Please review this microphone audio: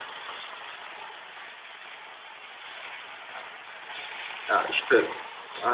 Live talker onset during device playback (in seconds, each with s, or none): 4.5 s